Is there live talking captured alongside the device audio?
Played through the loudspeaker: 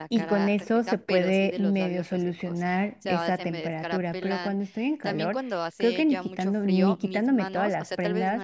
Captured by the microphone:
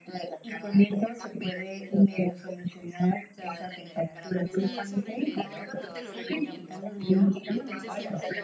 Yes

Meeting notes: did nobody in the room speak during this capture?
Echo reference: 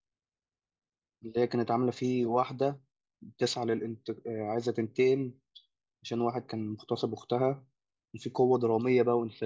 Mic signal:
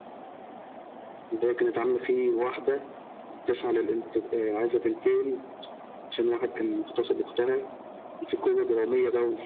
Yes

